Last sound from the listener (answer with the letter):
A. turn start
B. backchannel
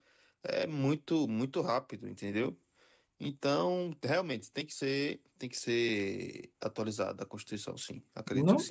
A